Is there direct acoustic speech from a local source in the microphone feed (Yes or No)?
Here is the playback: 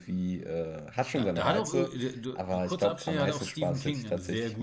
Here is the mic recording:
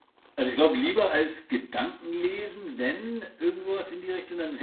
Yes